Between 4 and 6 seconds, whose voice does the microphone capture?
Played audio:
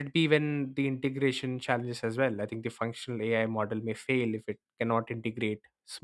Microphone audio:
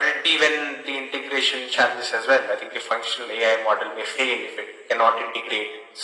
echo only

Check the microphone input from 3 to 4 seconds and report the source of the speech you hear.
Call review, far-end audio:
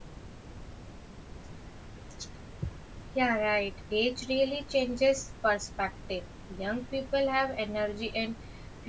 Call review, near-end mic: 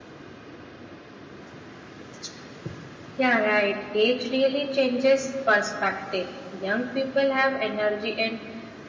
echo only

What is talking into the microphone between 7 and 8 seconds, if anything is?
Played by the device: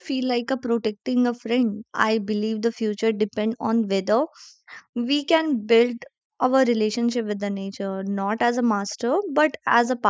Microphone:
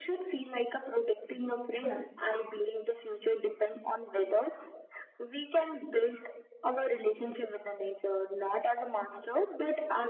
echo only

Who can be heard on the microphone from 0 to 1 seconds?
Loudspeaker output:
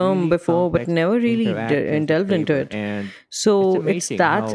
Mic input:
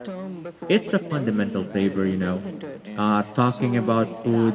both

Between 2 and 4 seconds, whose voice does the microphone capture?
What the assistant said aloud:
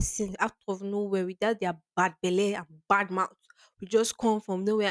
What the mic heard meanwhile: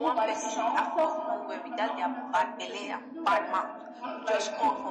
both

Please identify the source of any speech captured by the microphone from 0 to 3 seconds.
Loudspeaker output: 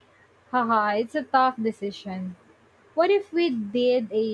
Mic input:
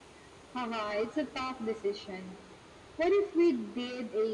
echo only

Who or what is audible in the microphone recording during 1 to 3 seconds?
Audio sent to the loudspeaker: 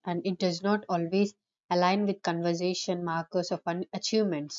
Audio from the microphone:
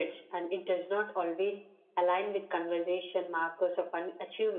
echo only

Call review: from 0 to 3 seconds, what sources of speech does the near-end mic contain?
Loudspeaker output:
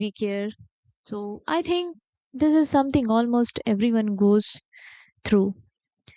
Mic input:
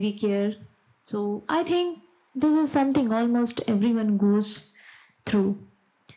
echo only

